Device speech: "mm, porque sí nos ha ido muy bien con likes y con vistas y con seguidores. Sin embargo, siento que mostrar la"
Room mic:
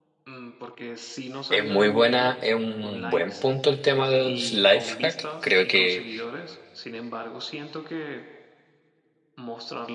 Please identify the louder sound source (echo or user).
user